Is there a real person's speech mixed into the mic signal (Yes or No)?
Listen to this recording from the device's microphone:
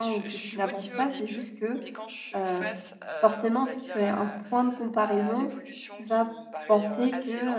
Yes